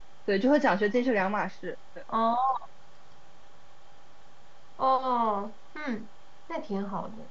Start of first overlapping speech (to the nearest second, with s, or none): none